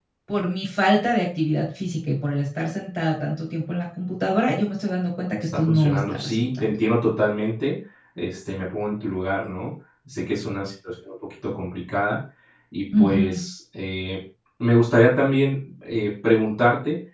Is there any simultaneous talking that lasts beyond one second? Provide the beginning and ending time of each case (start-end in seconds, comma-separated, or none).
5.3-6.7